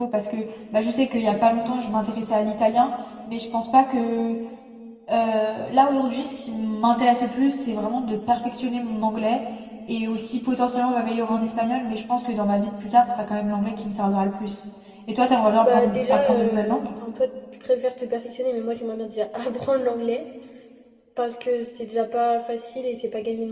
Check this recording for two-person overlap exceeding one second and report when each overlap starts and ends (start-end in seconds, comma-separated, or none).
15.6-16.9